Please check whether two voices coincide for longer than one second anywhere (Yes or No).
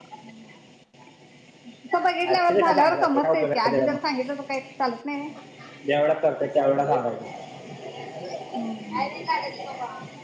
Yes